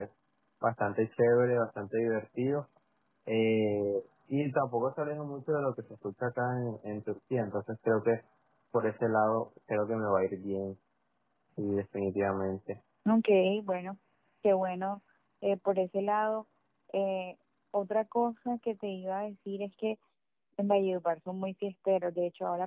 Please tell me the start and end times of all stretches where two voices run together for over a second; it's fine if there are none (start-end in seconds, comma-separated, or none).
none